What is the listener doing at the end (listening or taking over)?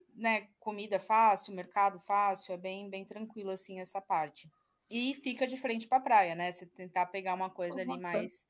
listening